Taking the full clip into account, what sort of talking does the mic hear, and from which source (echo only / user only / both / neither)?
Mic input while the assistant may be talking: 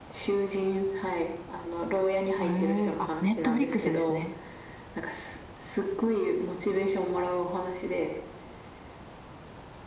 both